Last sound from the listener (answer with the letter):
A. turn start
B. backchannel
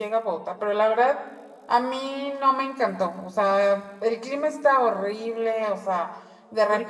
B